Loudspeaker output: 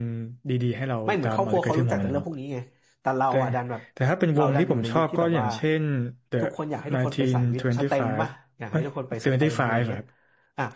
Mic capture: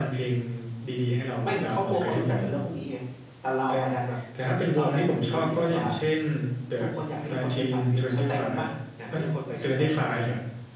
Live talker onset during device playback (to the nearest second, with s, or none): none